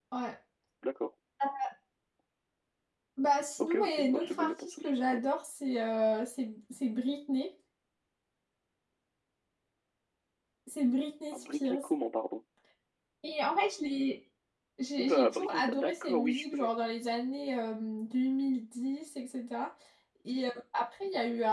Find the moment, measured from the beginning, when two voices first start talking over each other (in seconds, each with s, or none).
3.6 s